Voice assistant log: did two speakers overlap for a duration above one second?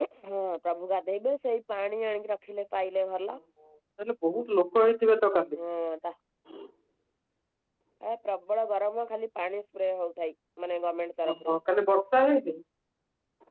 No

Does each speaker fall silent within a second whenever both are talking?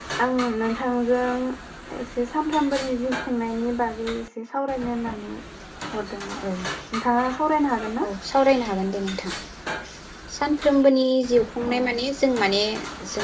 Yes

